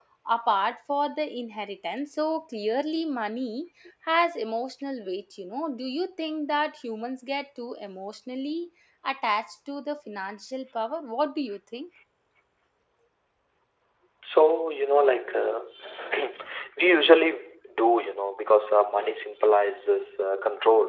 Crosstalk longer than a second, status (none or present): none